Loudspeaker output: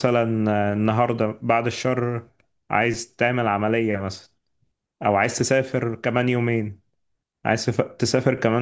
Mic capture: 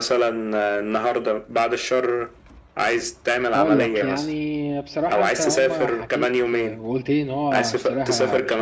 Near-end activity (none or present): present